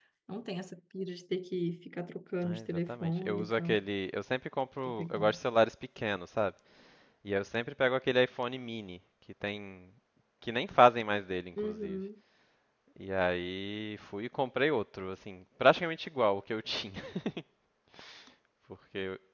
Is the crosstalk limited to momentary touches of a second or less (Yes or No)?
No